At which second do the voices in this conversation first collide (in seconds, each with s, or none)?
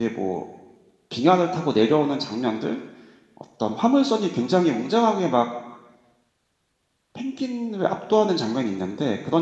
none